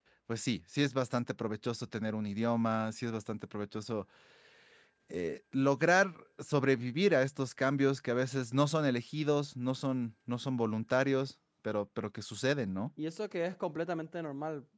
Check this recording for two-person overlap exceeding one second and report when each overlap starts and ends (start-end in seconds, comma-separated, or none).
none